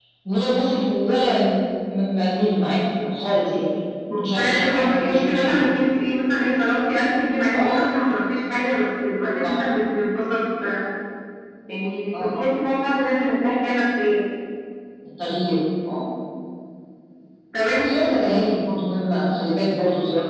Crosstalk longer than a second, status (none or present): present